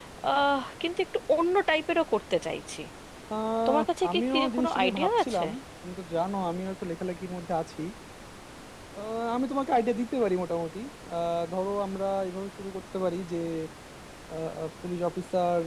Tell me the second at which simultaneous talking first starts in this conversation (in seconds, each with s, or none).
3.7 s